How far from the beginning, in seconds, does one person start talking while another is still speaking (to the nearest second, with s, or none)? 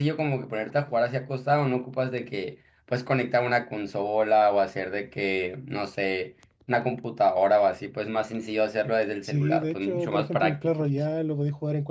9 s